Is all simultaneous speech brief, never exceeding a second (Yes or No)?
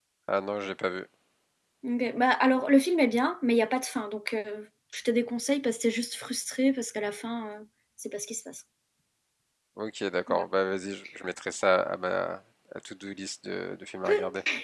Yes